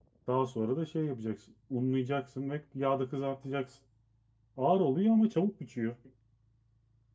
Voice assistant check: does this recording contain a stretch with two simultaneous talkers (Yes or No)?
No